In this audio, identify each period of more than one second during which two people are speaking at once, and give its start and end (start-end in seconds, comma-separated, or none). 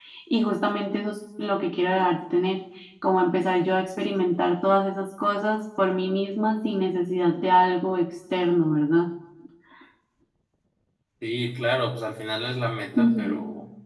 none